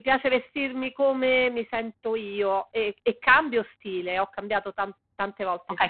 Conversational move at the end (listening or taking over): taking over